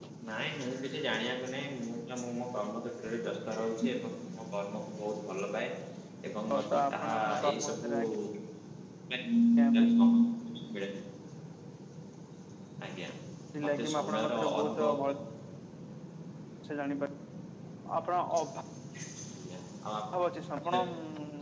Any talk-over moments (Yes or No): Yes